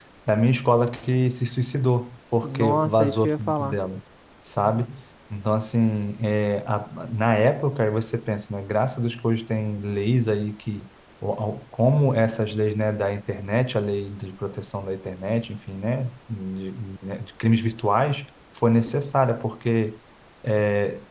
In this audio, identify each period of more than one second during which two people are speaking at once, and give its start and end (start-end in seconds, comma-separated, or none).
2.4-3.8